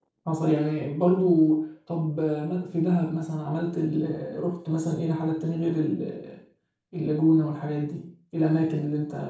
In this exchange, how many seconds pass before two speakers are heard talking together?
none

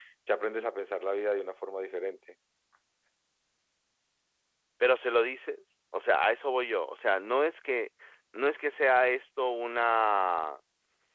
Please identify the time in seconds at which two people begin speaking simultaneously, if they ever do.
none

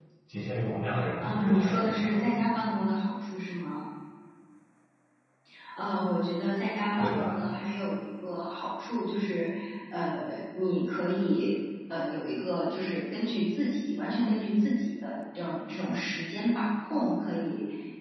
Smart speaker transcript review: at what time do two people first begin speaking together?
1.2 s

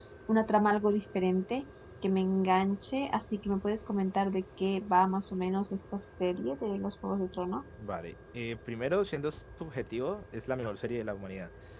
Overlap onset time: none

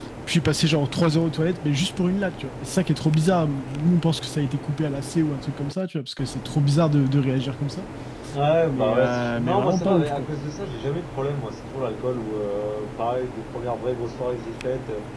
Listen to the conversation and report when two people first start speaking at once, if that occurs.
8.7 s

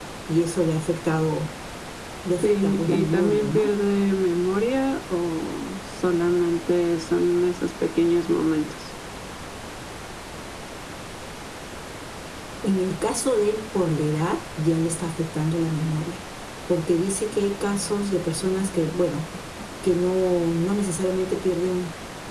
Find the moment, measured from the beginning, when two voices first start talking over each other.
2.4 s

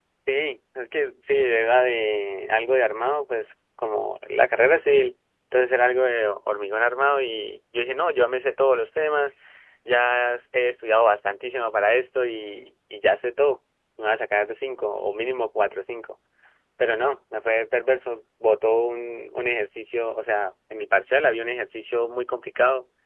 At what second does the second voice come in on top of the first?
none

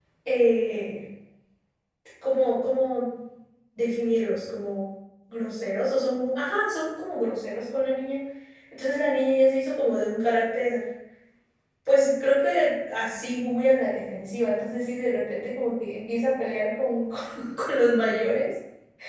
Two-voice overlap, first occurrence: none

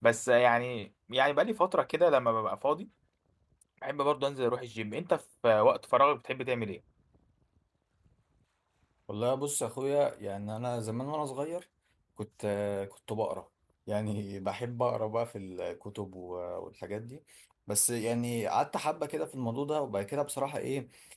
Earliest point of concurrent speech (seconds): none

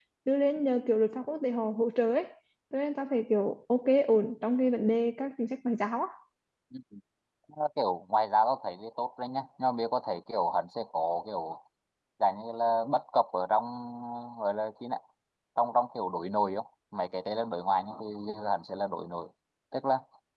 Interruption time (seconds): none

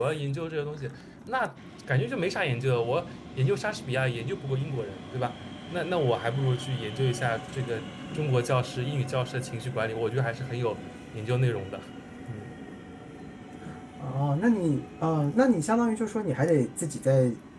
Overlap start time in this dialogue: none

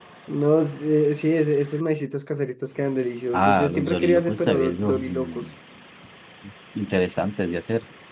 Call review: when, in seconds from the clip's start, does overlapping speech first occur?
3.3 s

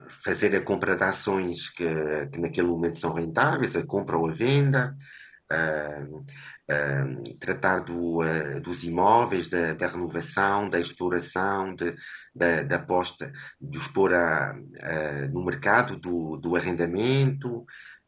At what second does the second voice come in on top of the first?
none

